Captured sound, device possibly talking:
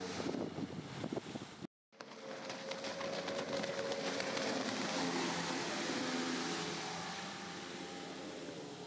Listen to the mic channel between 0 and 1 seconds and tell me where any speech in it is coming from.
neither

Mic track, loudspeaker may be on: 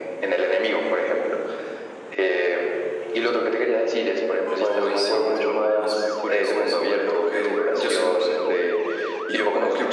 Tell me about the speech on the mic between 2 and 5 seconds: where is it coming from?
echo only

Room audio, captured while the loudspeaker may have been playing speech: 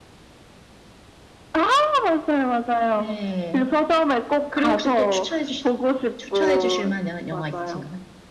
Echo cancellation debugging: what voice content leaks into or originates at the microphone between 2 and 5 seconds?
both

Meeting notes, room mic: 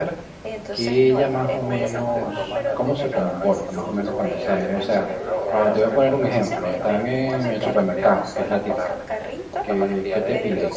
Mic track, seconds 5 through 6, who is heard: both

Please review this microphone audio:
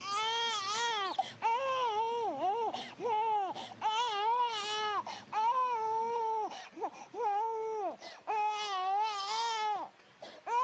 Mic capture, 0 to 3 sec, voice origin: neither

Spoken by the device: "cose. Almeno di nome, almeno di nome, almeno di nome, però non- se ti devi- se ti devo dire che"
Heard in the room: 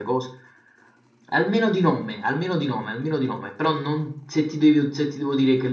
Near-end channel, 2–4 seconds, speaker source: echo only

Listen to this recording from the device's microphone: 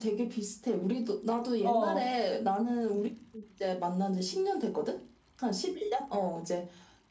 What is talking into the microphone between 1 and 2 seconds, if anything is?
both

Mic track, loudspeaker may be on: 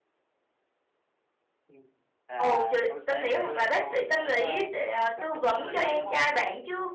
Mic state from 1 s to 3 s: both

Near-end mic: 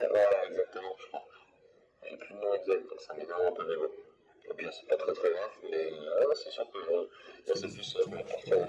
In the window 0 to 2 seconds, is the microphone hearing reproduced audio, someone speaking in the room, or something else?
echo only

